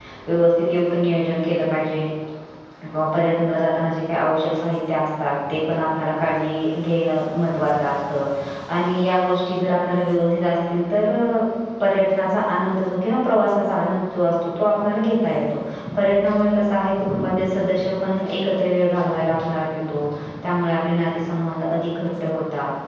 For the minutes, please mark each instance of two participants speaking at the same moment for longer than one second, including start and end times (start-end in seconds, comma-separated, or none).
none